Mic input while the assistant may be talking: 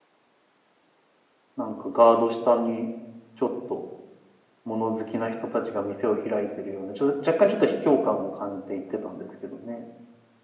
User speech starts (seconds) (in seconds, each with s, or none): 1.5 s